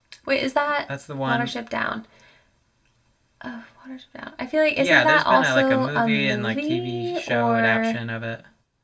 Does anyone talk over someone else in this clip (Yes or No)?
Yes